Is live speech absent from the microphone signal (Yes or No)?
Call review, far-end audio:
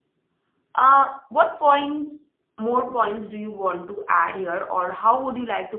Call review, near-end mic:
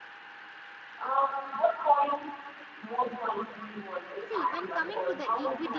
No